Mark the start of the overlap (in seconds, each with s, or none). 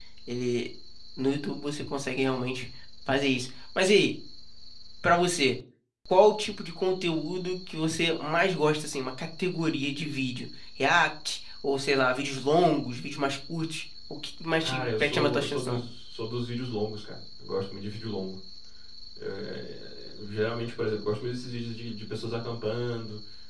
14.6 s